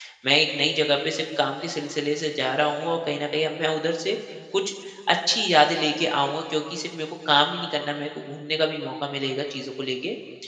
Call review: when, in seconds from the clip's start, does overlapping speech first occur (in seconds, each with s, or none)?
none